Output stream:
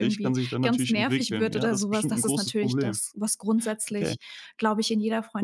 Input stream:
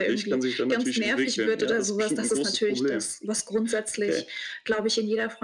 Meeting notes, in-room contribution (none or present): none